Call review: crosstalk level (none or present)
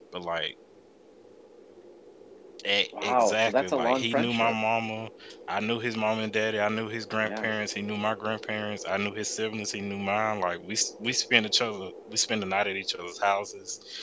present